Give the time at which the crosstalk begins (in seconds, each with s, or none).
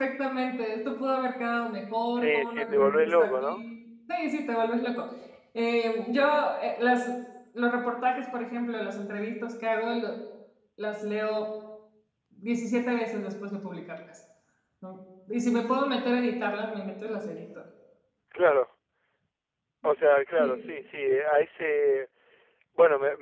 2.2 s